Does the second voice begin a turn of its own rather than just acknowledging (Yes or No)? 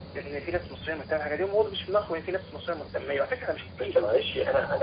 Yes